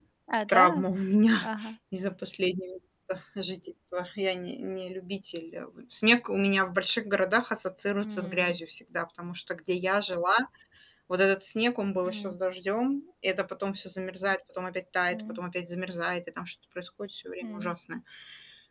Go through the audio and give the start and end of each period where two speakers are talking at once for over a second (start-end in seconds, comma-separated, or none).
none